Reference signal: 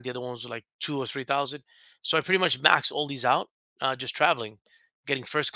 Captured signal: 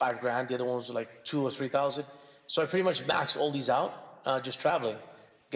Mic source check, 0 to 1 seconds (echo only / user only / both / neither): echo only